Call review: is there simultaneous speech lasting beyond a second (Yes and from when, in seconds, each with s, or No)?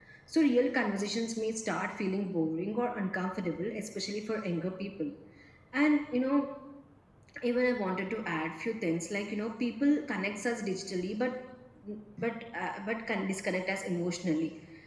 No